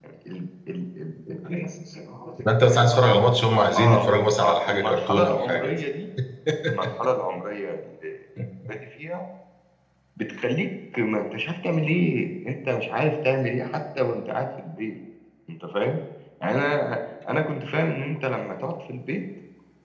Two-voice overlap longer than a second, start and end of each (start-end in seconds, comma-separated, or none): 3.8-5.7